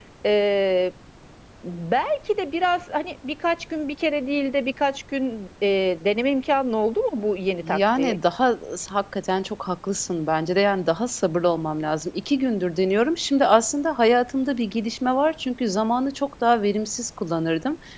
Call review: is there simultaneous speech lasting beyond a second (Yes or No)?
No